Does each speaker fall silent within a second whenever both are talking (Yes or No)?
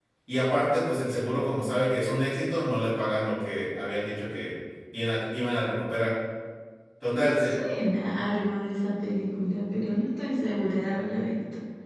Yes